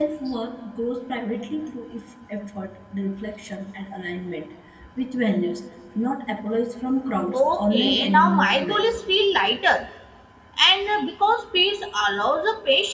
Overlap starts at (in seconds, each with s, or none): 7.3 s